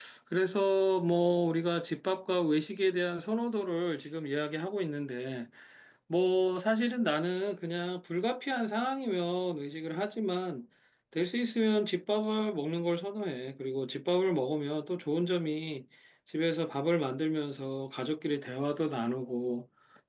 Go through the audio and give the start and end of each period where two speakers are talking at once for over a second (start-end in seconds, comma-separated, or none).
none